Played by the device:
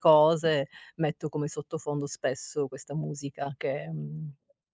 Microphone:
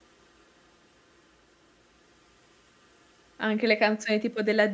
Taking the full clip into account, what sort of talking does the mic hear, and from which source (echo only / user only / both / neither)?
user only